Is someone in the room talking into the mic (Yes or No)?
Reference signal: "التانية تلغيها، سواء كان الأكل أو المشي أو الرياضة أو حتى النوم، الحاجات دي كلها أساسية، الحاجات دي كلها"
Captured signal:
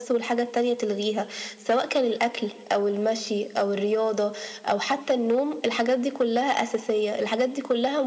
No